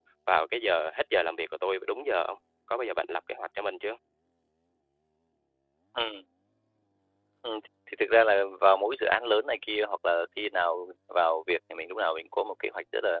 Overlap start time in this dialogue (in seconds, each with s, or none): none